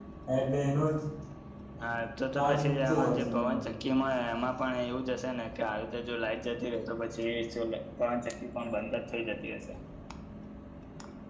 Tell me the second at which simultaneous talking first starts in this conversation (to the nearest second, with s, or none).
2 s